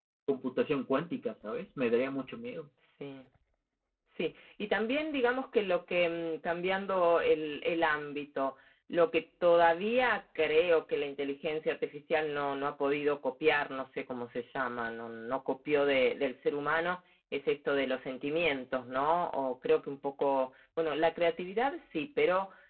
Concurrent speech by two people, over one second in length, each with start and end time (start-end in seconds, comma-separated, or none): none